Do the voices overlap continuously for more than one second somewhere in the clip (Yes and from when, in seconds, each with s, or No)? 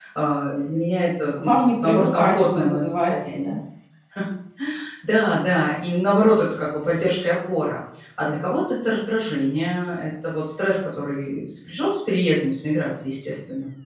Yes, from 1.3 s